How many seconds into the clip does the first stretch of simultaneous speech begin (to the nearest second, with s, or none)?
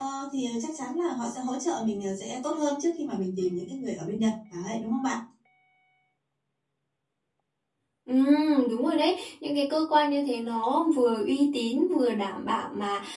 none